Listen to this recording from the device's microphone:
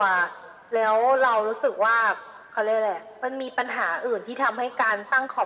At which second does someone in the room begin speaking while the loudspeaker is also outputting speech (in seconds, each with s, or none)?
none